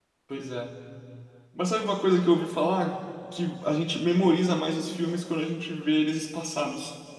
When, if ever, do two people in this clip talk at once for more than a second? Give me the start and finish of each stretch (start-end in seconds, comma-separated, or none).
none